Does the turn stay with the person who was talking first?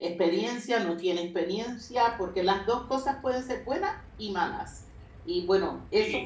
No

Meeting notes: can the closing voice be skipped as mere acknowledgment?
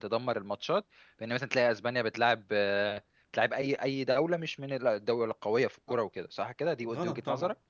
No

